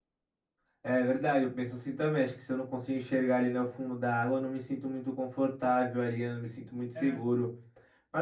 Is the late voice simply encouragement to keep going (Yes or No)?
Yes